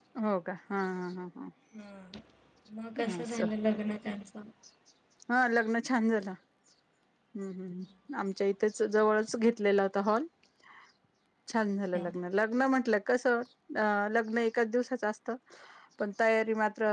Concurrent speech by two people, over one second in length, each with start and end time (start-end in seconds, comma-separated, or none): none